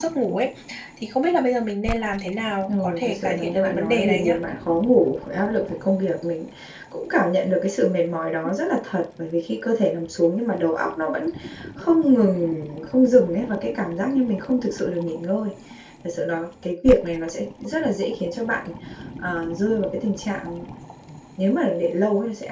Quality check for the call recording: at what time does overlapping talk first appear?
2.7 s

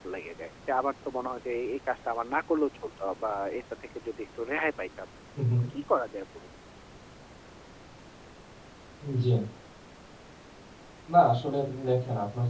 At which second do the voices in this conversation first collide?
none

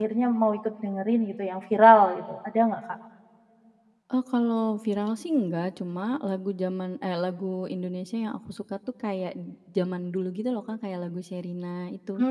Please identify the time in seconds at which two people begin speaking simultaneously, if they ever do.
none

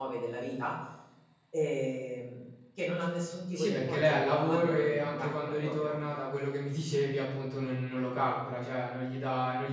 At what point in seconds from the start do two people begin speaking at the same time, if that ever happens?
3.5 s

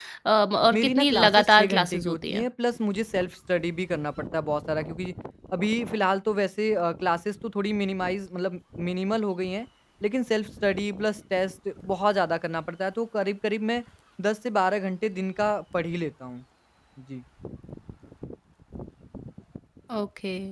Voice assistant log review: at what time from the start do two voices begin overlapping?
0.7 s

